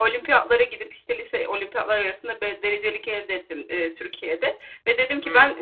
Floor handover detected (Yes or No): No